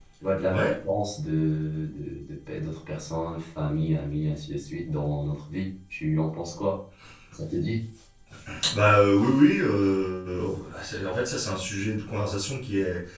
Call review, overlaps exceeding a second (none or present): none